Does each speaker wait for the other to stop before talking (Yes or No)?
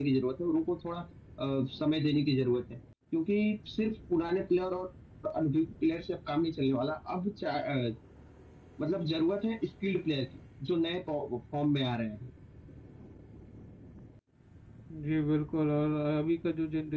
Yes